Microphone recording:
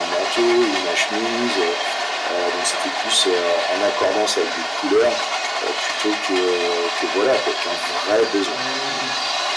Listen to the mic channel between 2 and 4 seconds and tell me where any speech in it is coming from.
echo only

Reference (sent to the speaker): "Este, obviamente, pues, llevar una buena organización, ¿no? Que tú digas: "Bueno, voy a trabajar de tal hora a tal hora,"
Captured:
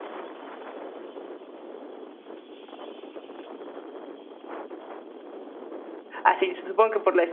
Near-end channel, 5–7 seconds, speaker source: user only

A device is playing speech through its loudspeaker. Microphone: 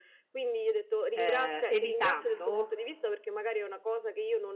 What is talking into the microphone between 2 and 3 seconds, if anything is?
both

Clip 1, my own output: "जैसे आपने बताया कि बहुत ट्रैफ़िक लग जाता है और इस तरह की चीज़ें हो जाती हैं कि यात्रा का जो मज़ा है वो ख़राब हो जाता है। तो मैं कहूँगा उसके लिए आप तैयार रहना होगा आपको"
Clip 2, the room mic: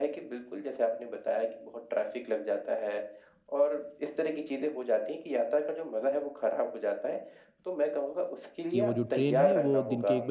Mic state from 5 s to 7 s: echo only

